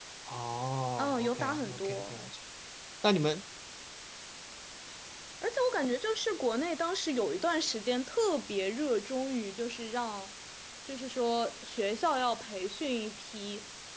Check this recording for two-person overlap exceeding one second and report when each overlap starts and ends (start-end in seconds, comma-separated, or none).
1.0-2.2